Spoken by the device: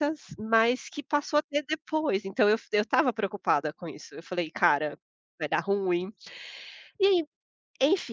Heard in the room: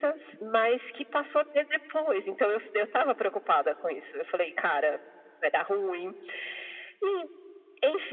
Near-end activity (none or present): none